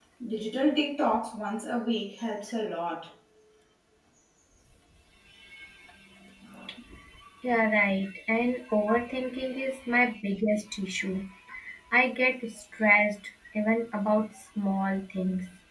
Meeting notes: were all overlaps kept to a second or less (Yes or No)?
Yes